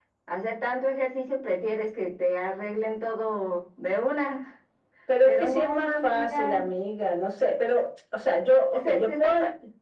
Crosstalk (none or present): present